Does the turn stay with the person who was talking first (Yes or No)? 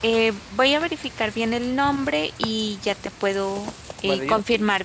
No